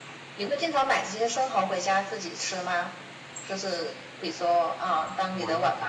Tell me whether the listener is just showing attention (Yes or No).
No